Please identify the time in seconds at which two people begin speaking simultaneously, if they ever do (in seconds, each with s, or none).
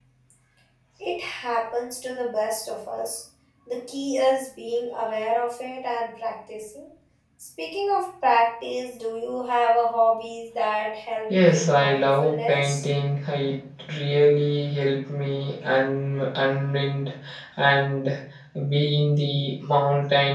11.3 s